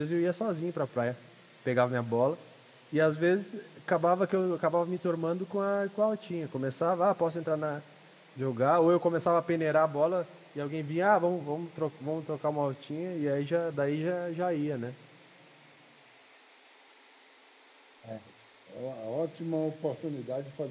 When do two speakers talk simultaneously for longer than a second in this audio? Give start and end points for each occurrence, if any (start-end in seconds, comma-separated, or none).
none